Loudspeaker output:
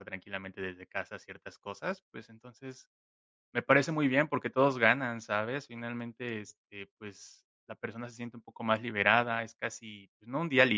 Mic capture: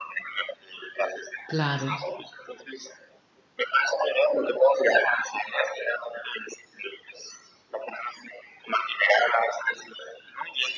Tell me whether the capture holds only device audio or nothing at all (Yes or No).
No